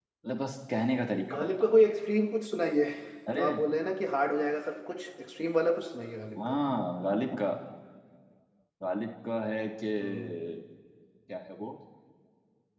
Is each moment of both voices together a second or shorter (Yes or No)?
Yes